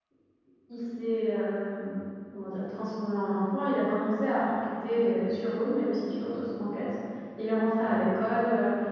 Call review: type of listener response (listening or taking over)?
listening